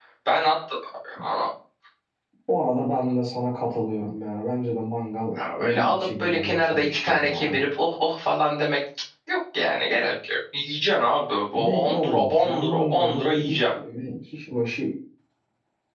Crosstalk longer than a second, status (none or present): present